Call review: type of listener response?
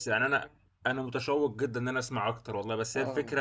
listening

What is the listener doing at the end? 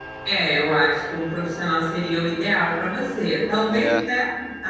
listening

